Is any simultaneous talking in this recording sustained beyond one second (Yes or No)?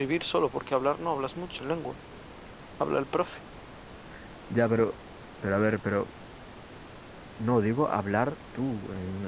No